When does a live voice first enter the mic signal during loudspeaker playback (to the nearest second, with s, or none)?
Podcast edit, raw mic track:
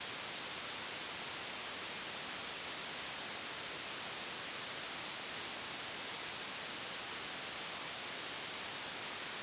none